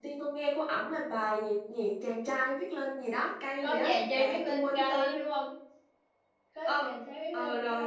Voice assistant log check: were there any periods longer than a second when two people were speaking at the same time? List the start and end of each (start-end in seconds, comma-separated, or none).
3.6-5.1